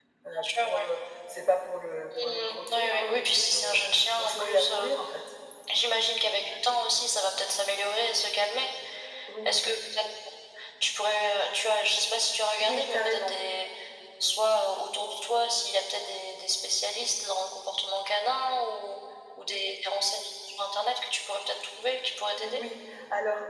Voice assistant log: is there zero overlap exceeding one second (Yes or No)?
No